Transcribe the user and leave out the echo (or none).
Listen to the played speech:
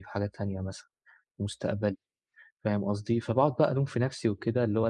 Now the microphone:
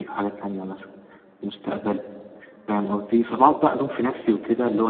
none